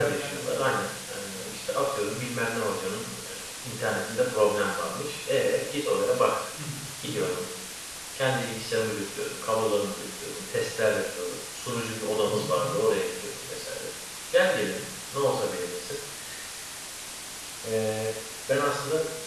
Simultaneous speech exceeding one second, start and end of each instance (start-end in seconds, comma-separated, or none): none